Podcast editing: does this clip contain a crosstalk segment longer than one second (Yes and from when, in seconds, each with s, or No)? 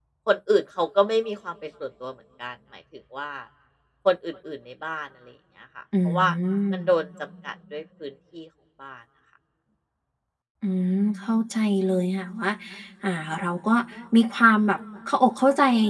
No